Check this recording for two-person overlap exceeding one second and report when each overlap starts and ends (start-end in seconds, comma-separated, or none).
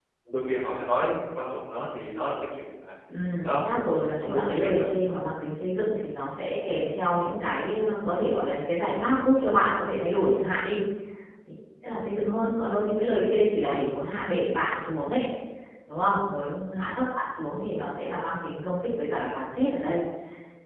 3.4-4.9